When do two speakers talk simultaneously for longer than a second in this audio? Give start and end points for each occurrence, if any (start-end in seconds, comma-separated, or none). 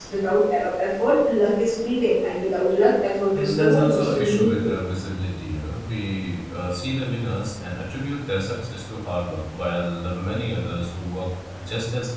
3.4-4.7